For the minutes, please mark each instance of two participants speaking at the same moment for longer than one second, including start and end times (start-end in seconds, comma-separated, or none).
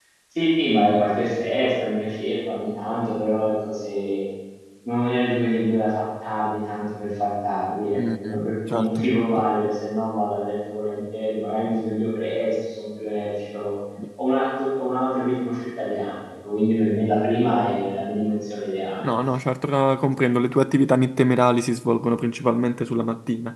8.0-9.2